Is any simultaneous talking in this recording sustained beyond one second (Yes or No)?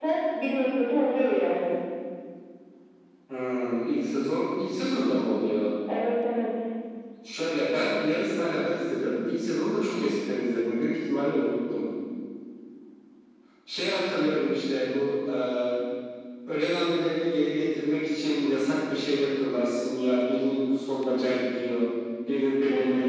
No